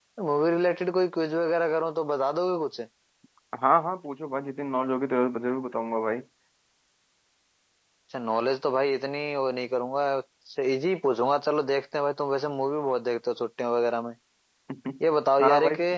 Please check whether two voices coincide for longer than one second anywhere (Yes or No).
No